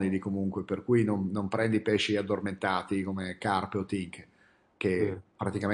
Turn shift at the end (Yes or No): No